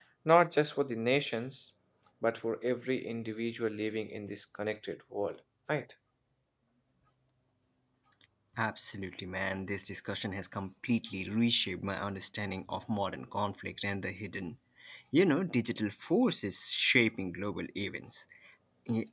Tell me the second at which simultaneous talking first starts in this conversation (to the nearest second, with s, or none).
none